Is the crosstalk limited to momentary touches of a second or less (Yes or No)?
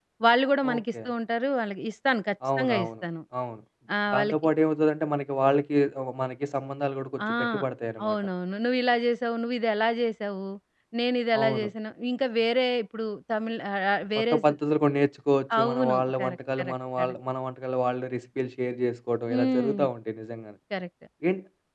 No